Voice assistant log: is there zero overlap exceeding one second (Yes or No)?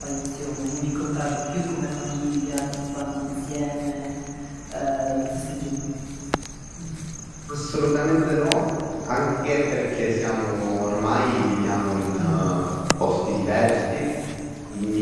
Yes